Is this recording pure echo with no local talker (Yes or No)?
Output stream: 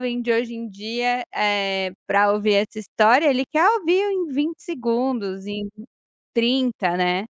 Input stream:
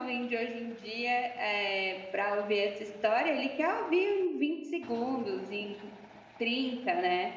Yes